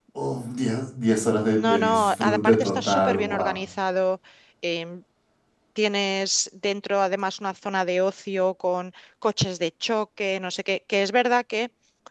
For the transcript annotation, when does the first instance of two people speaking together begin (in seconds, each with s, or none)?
1.6 s